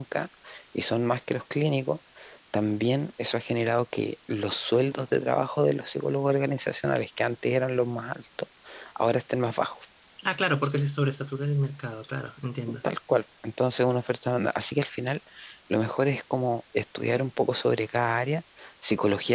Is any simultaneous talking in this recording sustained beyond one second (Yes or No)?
No